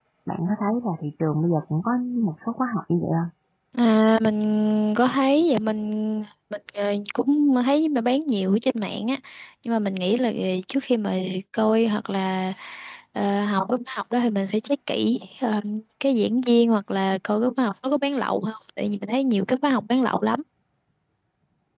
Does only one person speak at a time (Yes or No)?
Yes